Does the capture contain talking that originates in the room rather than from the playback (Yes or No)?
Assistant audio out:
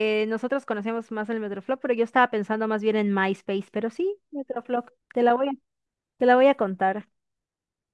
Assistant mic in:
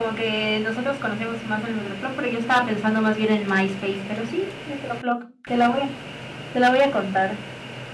No